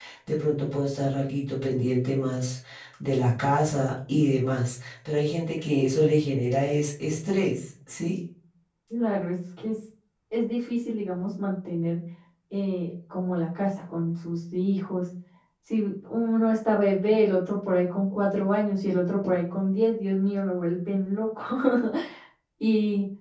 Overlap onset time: none

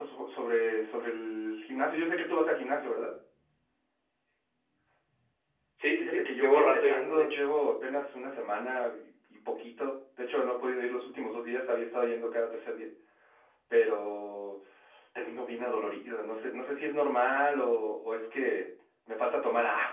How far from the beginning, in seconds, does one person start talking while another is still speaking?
6.0 s

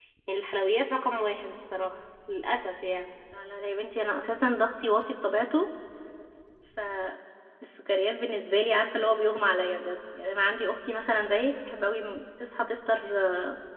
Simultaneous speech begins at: none

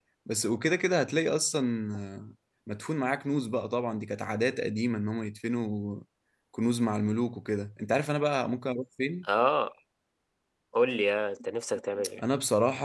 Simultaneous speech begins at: none

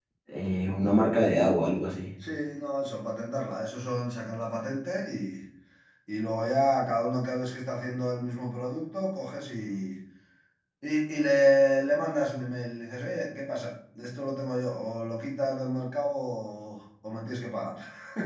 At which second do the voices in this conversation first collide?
none

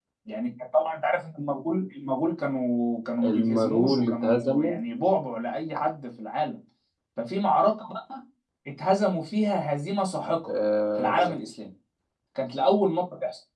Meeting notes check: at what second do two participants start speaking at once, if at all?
3.2 s

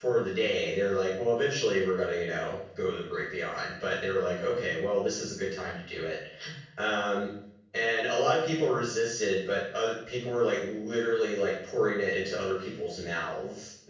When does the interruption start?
none

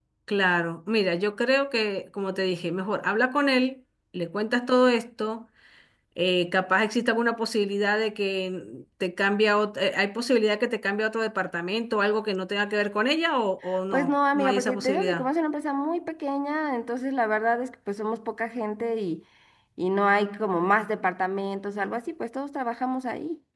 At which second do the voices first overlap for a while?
13.9 s

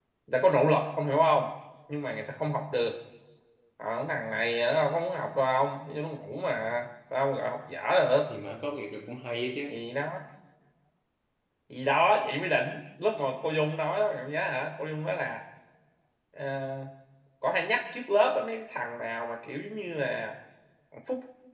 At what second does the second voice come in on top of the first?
none

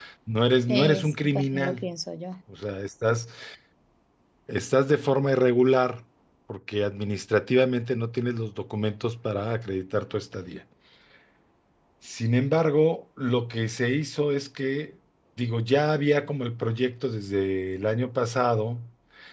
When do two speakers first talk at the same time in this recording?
0.7 s

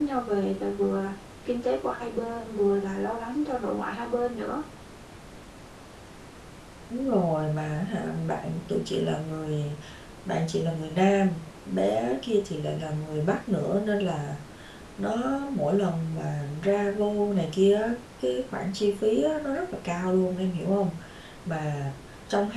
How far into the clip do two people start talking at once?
none

